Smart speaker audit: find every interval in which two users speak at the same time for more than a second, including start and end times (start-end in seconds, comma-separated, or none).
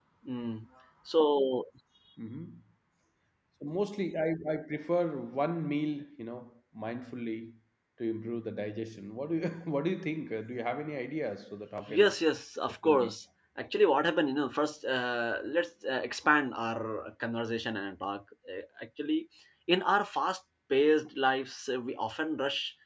none